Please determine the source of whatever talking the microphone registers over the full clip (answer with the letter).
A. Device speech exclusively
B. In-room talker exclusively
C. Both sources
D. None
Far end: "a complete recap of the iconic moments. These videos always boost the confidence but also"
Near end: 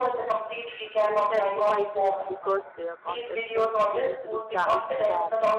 C